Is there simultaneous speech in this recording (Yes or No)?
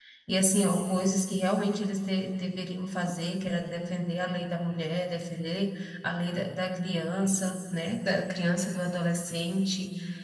No